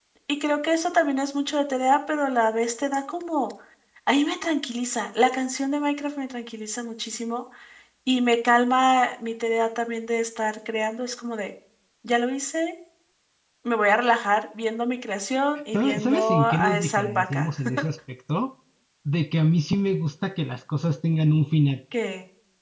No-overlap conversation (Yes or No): No